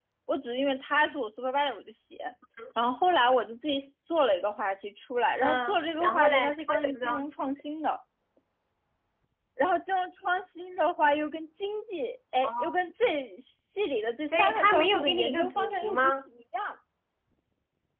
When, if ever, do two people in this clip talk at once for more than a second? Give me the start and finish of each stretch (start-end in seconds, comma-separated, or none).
5.4-7.2, 14.3-16.1